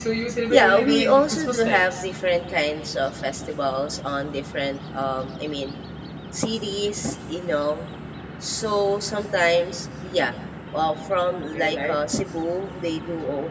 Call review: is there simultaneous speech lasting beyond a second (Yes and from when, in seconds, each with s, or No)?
Yes, from 0.5 s